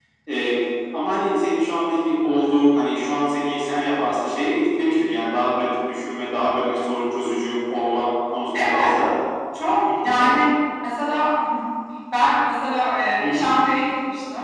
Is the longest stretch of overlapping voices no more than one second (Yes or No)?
Yes